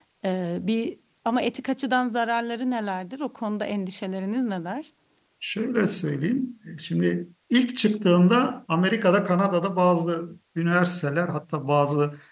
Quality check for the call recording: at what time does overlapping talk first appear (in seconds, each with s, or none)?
none